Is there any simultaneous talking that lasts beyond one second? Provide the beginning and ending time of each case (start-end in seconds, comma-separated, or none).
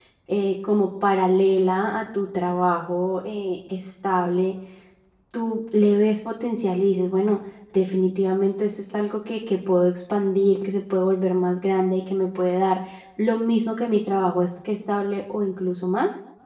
none